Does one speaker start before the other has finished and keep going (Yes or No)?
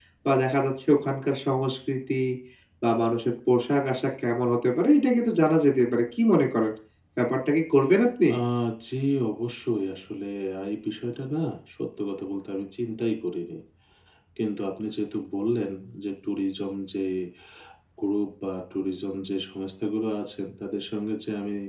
No